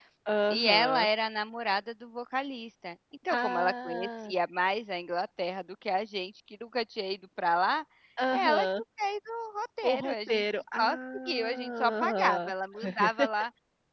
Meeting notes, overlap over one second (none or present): present